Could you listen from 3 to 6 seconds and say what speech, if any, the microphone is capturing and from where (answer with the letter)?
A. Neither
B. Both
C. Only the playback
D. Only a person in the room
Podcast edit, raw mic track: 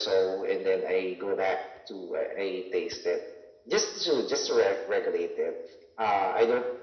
C